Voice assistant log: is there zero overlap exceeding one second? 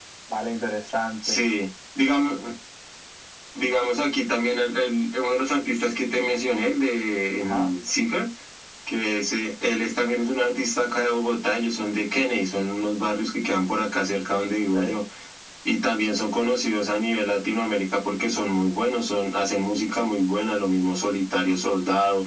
Yes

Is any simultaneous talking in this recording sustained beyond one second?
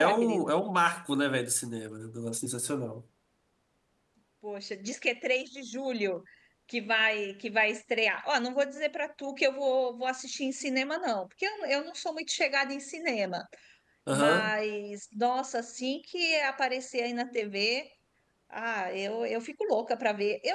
No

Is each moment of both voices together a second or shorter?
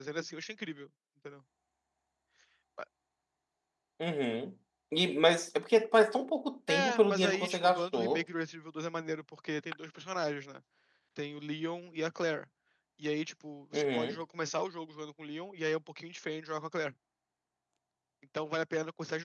No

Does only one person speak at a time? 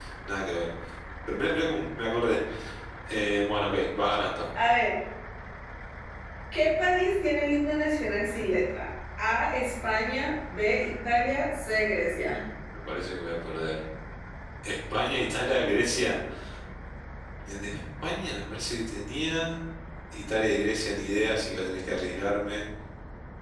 Yes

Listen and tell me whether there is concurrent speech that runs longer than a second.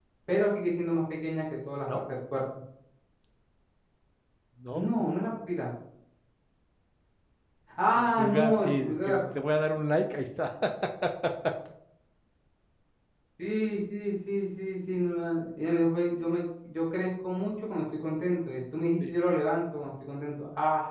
Yes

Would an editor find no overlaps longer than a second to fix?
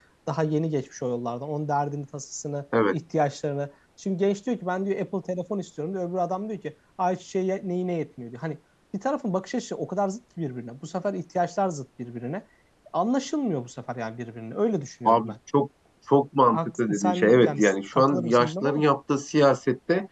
No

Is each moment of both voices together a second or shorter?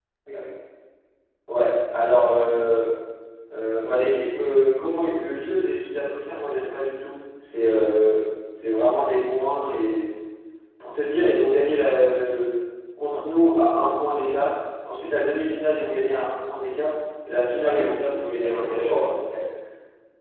No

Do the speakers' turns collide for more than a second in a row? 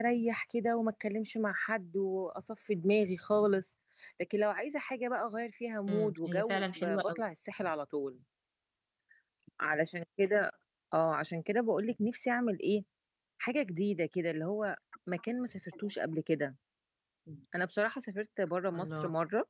Yes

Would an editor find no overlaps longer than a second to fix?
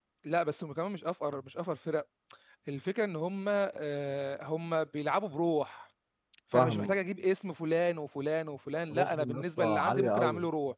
No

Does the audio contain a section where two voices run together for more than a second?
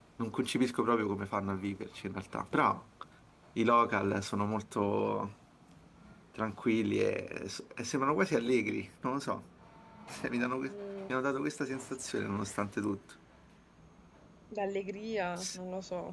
No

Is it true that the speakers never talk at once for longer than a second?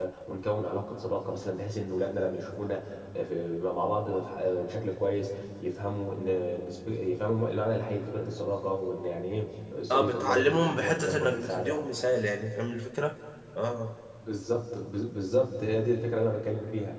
No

